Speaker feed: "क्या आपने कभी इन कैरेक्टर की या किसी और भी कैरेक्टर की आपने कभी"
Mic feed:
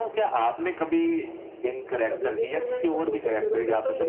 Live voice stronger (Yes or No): No